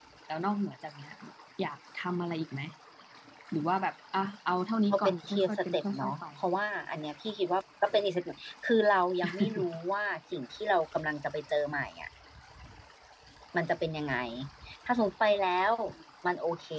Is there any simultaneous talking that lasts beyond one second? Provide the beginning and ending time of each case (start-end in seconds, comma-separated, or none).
4.9-6.2